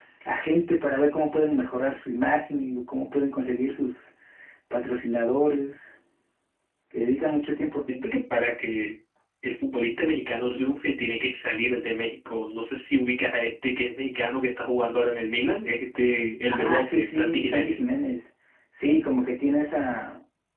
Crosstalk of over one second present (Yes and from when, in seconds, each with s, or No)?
Yes, from 16.5 s